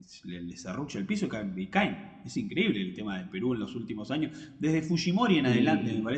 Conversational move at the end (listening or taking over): listening